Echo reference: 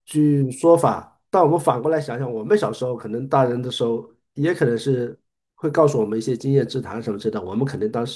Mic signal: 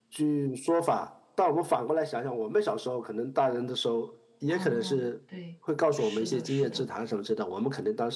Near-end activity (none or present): present